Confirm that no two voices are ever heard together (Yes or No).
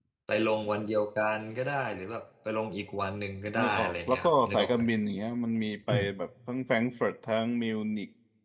No